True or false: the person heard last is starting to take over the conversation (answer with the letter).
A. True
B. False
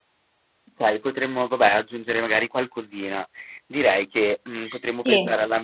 B